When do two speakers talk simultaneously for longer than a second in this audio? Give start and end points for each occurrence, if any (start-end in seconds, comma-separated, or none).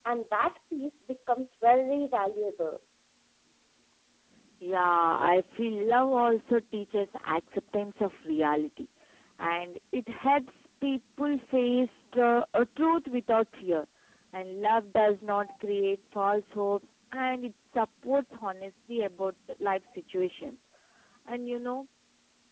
none